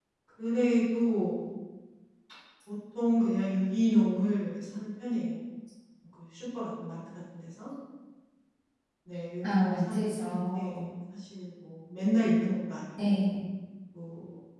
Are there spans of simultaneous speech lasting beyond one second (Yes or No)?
Yes